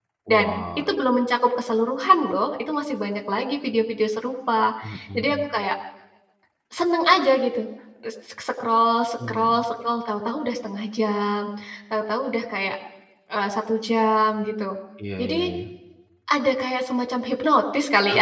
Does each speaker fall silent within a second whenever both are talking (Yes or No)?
Yes